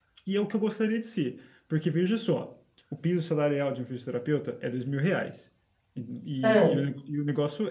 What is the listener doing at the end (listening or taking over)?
listening